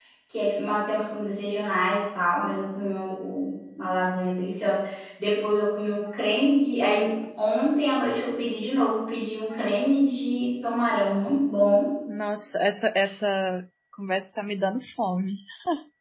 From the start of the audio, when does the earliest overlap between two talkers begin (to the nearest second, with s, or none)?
none